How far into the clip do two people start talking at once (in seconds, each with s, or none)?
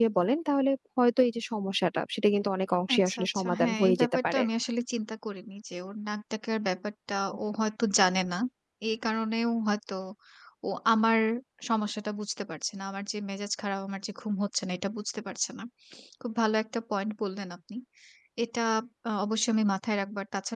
2.9 s